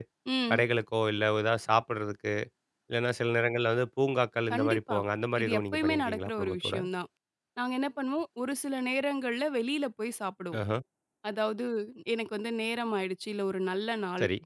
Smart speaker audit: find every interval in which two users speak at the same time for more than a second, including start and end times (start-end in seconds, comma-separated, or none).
5.4-6.8